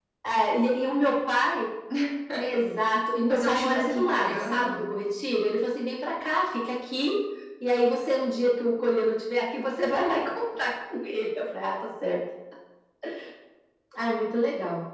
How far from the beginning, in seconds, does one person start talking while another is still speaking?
3 s

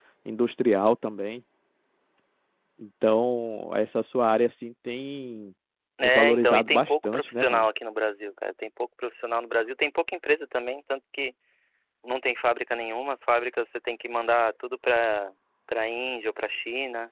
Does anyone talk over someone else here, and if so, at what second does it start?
6 s

